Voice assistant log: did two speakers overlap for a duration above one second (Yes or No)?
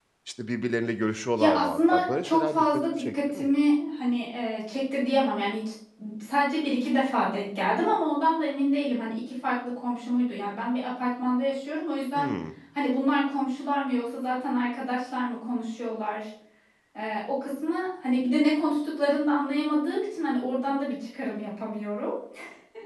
Yes